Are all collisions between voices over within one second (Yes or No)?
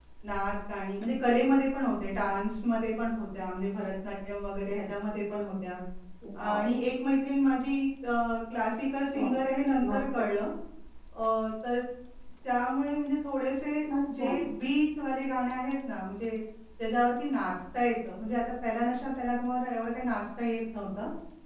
Yes